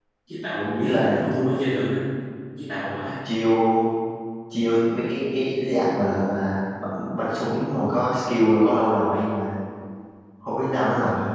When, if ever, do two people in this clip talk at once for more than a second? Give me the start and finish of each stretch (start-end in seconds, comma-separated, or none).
none